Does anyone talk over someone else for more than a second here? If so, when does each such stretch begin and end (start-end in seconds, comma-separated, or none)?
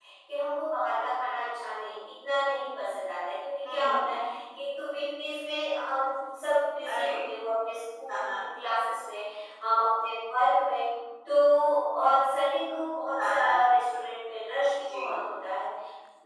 none